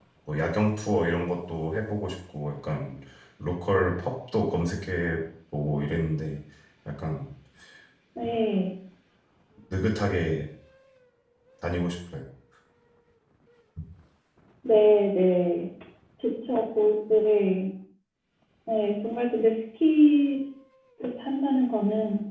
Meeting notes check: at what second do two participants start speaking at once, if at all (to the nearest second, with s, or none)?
none